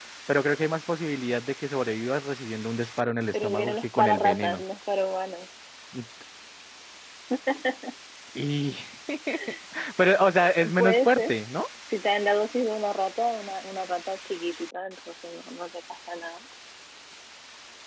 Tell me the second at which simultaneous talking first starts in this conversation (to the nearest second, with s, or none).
3 s